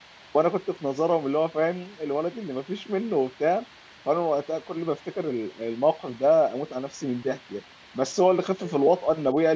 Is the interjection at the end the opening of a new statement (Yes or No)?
No